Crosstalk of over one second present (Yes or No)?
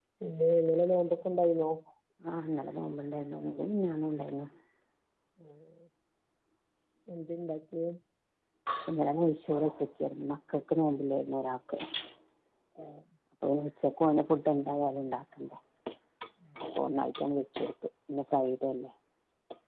No